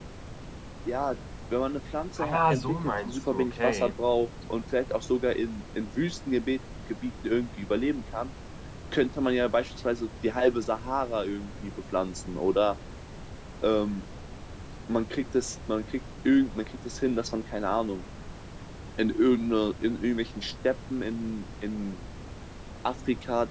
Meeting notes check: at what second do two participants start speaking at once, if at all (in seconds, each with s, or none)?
2.2 s